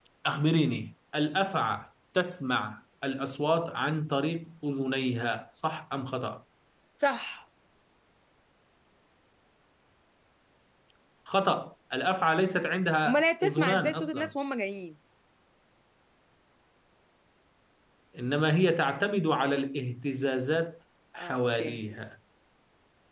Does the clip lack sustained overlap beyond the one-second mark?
No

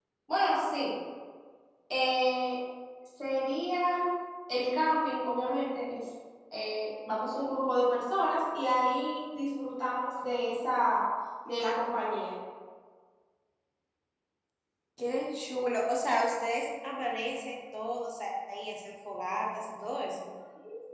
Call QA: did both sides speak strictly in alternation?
Yes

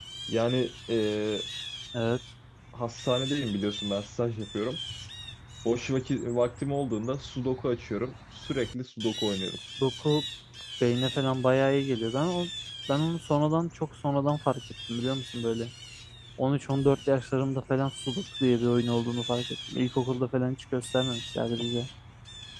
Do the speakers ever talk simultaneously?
No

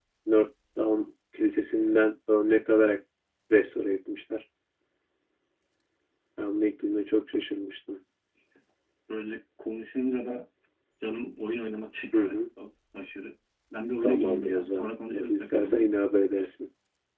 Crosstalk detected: Yes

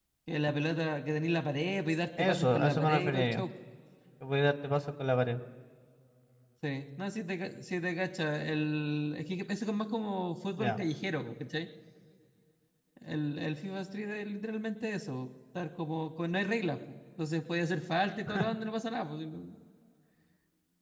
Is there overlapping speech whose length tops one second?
Yes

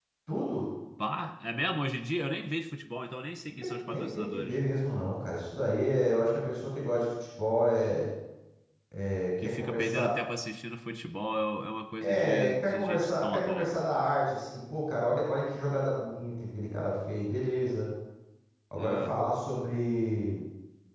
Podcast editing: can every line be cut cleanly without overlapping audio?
No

